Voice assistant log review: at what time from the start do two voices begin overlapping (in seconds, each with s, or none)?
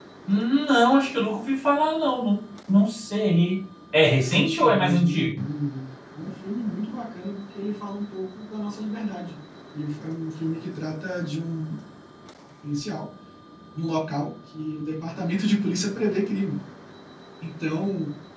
4.2 s